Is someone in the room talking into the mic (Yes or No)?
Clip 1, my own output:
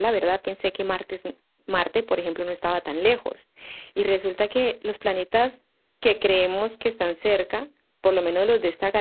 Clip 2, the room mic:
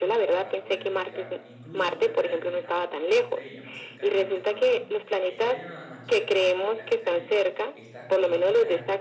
Yes